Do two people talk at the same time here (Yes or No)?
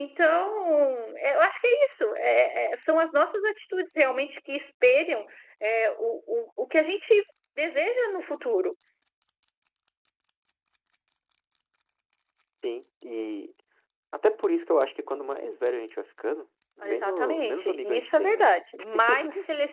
Yes